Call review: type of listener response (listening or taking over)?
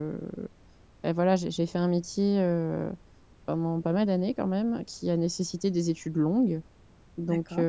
listening